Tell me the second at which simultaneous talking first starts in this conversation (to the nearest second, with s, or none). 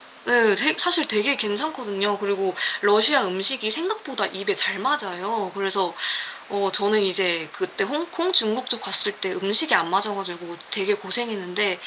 none